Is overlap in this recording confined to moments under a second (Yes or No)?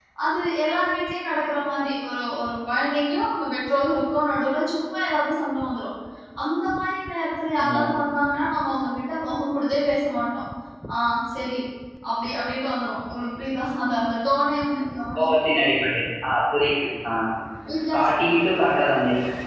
Yes